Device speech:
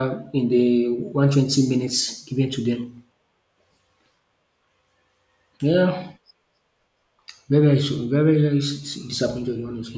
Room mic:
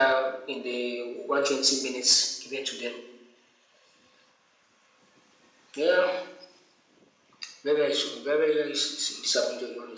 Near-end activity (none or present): none